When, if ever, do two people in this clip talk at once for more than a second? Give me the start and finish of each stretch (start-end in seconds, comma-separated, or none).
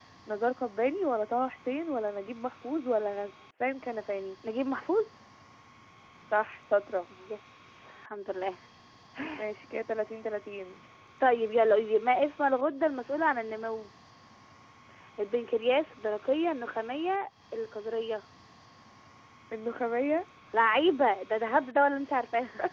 none